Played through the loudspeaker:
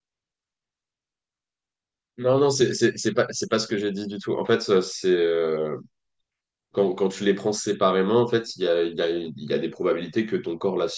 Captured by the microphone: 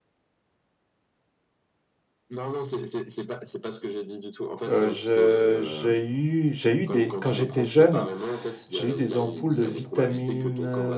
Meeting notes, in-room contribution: present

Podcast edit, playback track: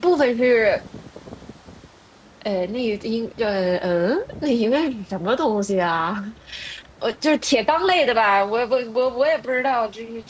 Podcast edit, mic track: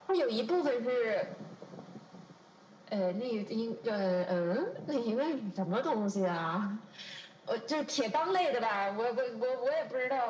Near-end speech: none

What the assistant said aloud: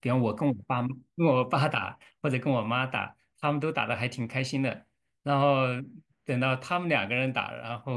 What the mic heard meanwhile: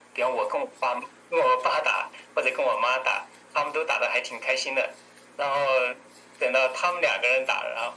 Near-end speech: none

